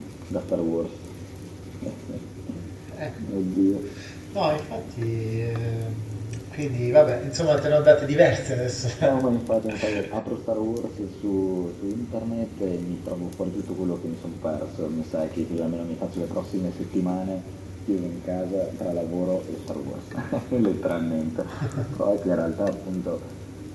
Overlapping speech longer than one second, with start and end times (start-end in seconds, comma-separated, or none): none